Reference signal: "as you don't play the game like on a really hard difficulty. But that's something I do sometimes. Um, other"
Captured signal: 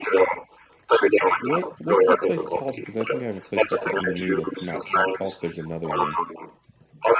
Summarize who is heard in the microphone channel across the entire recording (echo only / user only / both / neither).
both